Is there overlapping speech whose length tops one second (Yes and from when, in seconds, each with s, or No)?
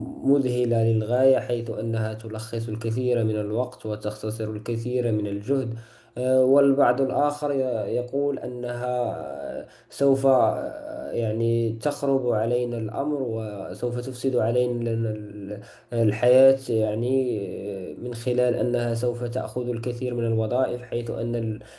No